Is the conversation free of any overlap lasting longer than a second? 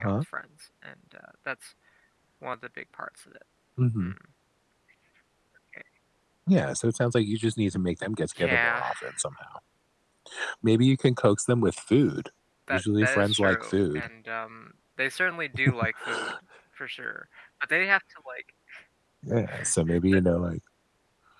No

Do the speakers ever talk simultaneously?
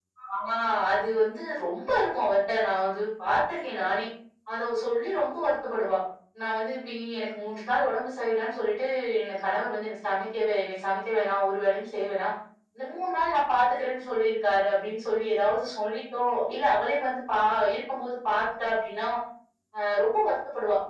No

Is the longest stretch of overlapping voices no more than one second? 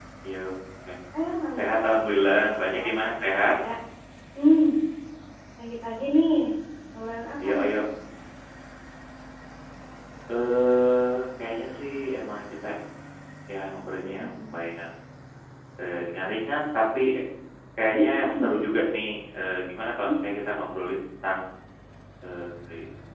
No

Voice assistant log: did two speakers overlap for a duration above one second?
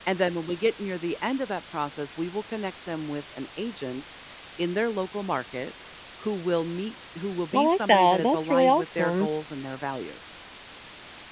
Yes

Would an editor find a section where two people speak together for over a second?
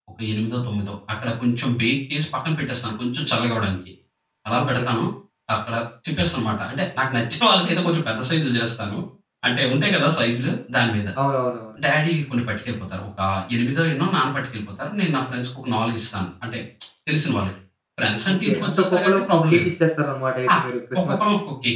Yes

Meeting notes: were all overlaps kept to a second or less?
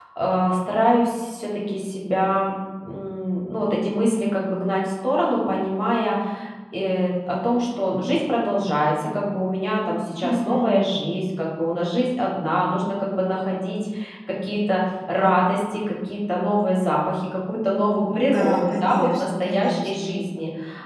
No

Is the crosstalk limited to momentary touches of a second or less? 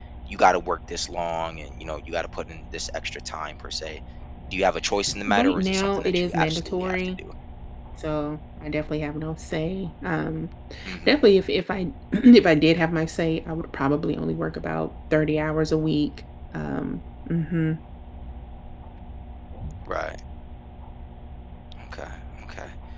No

